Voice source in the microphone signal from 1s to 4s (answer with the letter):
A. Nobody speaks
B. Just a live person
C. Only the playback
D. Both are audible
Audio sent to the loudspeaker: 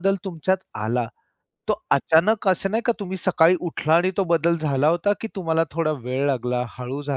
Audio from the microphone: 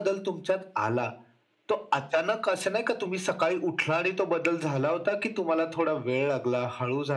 C